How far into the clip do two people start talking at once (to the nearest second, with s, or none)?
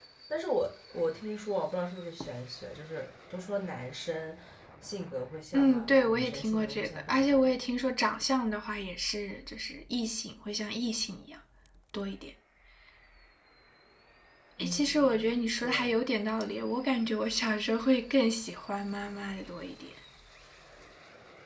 6 s